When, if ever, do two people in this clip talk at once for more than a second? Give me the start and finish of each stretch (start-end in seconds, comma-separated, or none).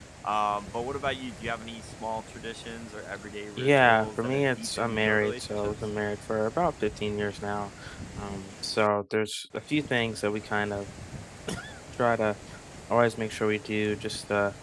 3.6-5.7